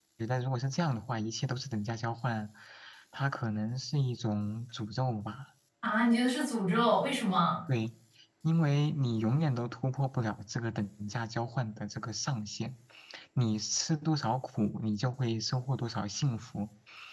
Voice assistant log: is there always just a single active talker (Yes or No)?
Yes